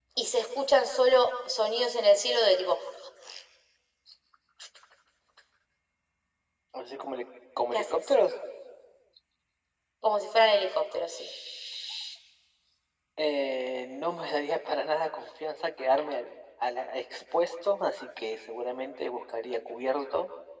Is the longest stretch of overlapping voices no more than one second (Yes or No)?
Yes